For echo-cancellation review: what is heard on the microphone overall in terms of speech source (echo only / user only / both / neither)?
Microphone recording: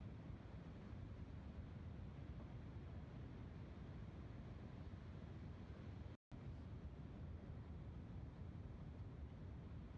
neither